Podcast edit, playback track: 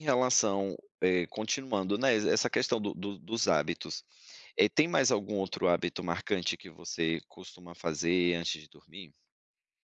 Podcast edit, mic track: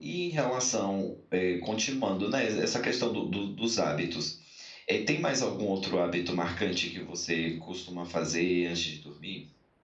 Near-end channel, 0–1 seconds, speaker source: echo only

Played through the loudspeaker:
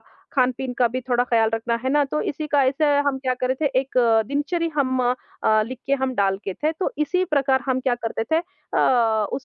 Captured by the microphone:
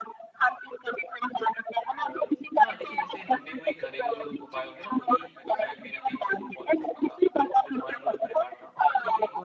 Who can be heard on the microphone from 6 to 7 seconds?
both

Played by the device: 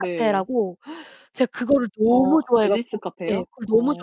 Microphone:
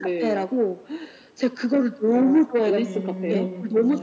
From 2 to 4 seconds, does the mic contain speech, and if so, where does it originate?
both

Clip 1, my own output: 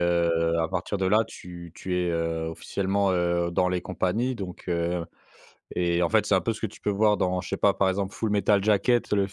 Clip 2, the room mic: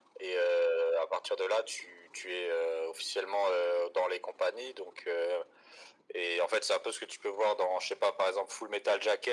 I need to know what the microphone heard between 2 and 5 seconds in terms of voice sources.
echo only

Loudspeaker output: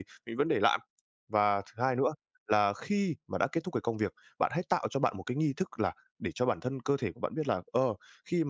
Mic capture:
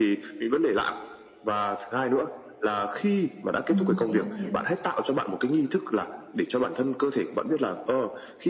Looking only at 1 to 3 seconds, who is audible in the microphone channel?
echo only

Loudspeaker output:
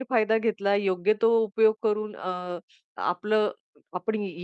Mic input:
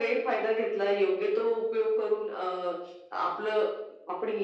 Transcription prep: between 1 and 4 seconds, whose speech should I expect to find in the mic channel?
echo only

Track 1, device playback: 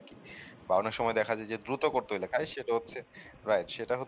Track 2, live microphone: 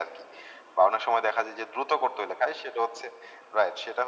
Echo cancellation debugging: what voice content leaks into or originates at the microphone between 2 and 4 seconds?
echo only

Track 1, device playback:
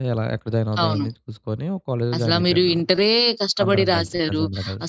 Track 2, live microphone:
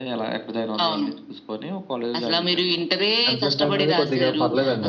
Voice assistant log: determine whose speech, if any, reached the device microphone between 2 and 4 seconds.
both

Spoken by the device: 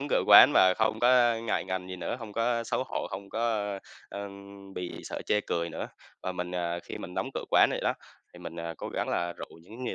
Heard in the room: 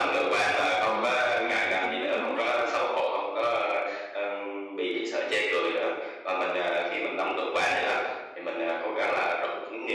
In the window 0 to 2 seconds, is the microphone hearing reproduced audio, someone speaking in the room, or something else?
both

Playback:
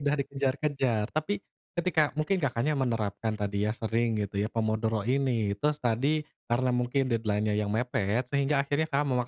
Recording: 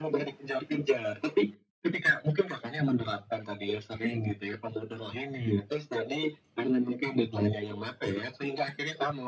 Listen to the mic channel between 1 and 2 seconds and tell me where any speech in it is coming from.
echo only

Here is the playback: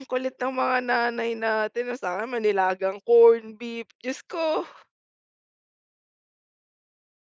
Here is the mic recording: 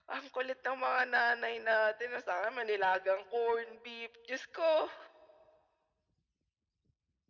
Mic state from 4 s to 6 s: echo only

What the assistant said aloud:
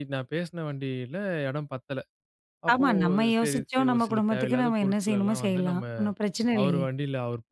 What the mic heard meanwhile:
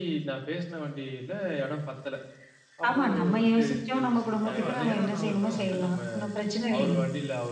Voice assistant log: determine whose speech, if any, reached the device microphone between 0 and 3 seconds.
echo only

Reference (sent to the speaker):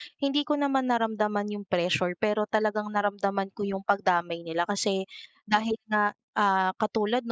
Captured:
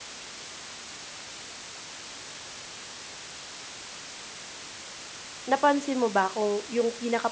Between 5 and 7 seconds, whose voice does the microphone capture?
user only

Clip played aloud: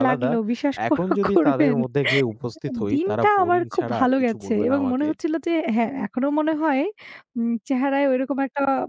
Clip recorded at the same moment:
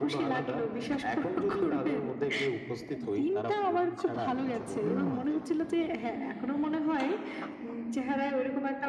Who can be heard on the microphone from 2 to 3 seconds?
echo only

